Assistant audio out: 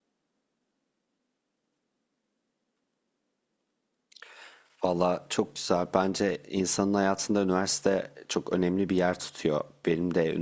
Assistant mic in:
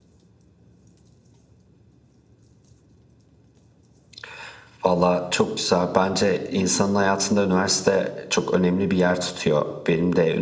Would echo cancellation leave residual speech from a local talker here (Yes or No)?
Yes